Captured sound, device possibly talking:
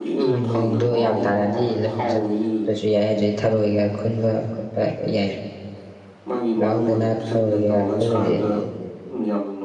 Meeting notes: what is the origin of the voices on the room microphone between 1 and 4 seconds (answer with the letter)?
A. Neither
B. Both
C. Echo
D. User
B